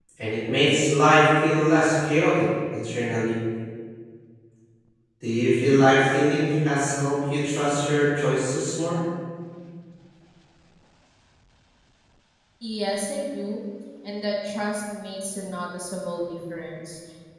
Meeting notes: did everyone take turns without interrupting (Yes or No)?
Yes